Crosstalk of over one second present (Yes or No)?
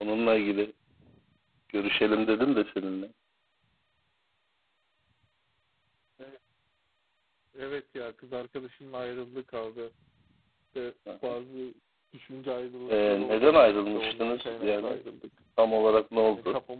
Yes